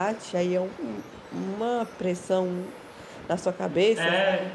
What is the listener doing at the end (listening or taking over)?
taking over